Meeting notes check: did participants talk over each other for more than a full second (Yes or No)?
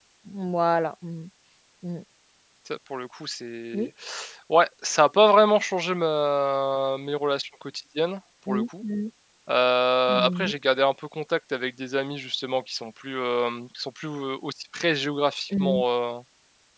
No